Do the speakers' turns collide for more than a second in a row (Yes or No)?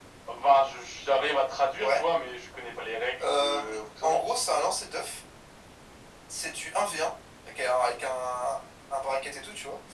No